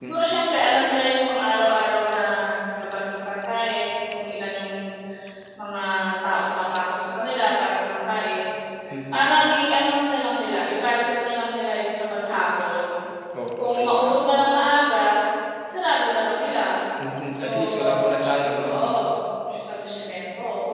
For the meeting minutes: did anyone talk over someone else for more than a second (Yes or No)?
Yes